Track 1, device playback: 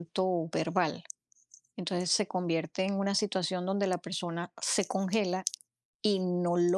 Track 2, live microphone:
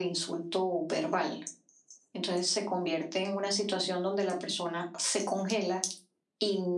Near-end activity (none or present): none